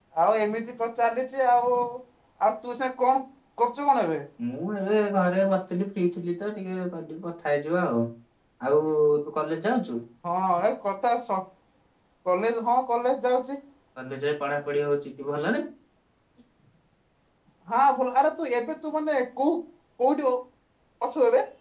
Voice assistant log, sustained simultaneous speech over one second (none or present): none